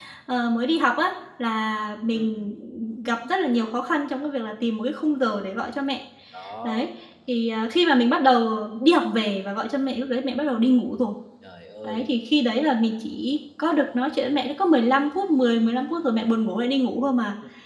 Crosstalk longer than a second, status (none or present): none